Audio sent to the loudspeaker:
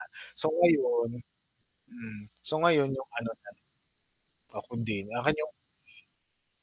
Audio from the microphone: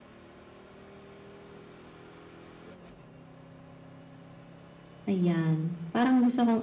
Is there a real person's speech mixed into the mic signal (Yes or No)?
Yes